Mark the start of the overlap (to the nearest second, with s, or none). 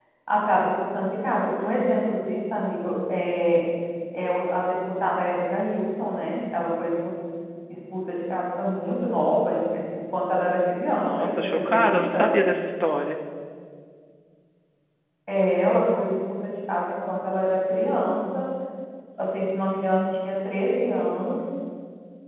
11 s